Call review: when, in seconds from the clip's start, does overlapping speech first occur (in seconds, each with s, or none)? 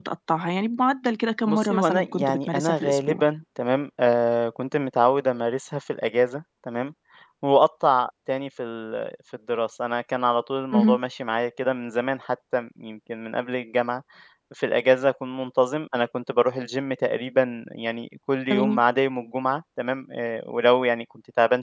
1.5 s